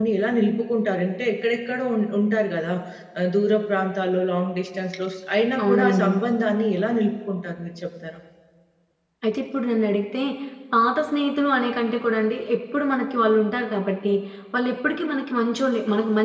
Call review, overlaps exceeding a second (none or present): none